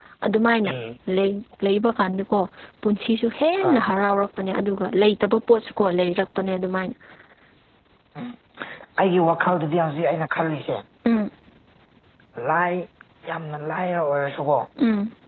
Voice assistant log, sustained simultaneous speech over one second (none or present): none